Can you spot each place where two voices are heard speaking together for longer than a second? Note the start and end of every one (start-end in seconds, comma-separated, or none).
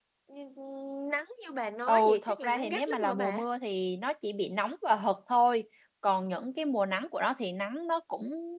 1.9-3.4